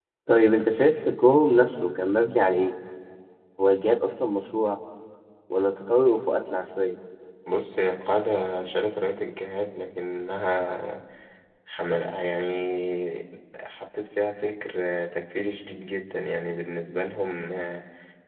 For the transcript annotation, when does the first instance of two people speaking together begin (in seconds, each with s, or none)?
none